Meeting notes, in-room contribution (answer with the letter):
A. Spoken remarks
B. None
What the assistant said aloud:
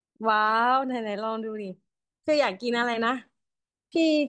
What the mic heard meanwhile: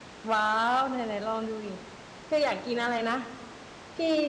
B